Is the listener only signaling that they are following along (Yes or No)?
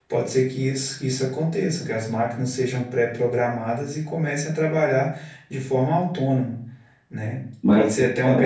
Yes